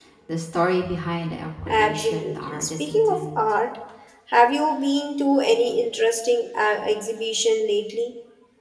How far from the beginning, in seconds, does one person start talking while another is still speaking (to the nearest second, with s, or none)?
2 s